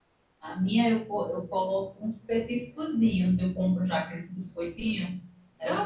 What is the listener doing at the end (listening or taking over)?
taking over